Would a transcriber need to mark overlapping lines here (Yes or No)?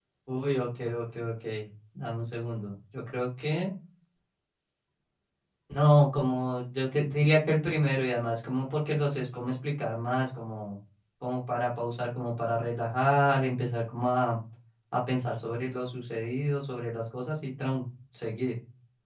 No